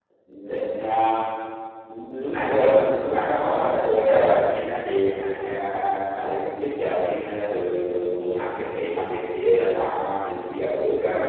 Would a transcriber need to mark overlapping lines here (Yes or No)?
No